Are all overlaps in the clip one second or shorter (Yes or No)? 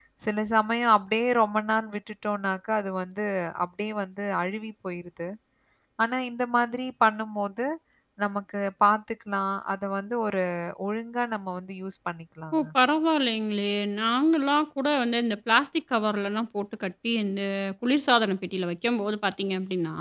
Yes